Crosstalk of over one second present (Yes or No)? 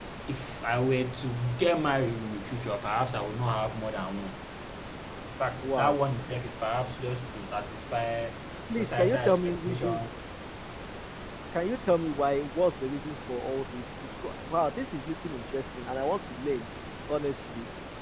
Yes